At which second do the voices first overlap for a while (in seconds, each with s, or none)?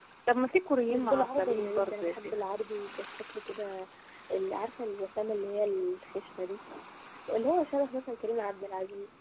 0.9 s